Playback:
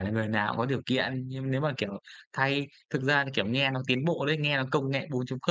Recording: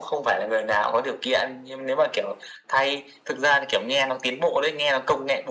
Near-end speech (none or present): none